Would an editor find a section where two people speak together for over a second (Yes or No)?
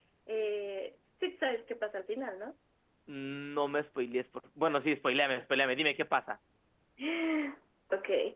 No